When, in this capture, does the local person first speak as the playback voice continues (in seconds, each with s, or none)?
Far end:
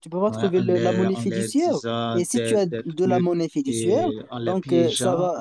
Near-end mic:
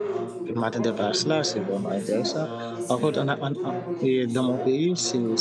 0.6 s